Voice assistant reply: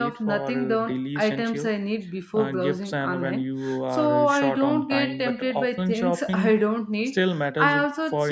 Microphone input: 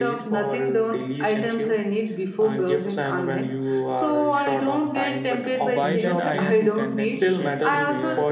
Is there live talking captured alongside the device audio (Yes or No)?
Yes